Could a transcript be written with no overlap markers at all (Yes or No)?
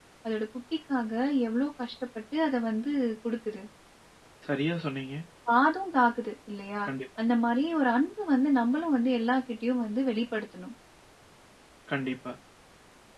Yes